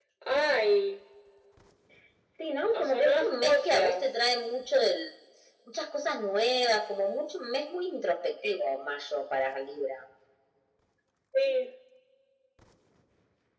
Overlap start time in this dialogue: 2.7 s

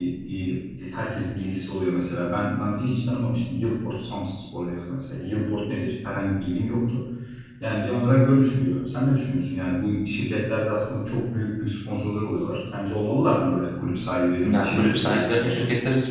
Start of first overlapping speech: 14.4 s

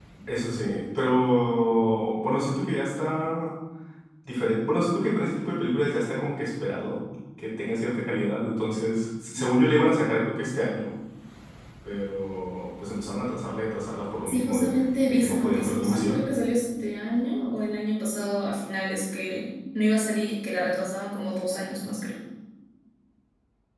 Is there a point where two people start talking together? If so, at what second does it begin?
14.3 s

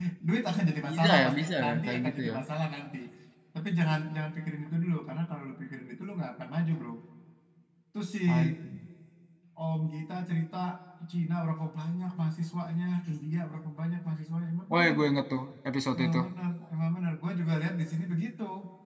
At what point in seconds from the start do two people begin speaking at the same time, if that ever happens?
0.9 s

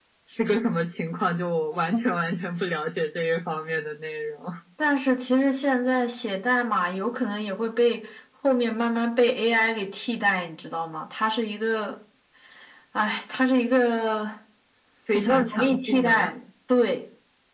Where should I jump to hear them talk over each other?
15.1 s

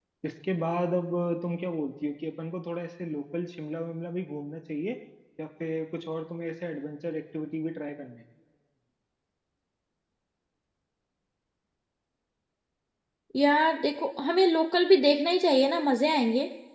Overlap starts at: none

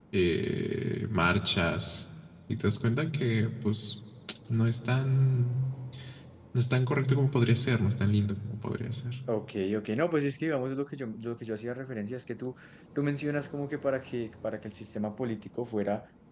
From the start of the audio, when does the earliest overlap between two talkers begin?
none

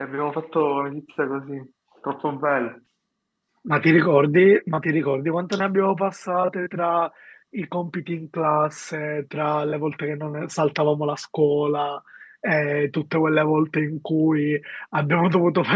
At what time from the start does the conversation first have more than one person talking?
none

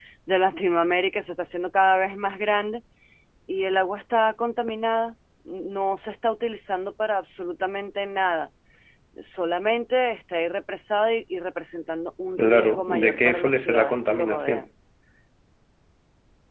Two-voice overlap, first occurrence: 12.4 s

